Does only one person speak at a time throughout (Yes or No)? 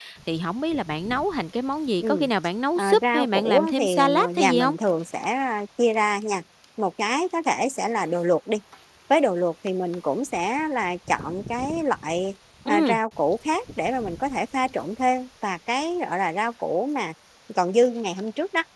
No